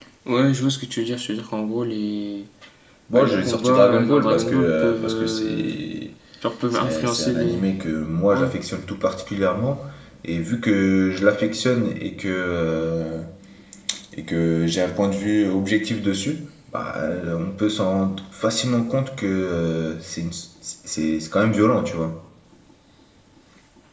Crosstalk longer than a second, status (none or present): present